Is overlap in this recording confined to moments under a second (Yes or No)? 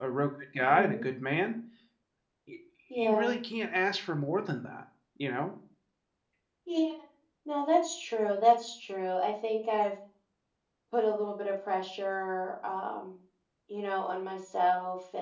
Yes